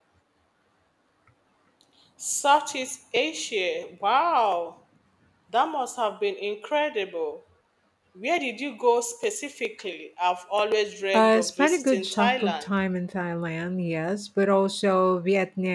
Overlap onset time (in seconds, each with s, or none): 11.1 s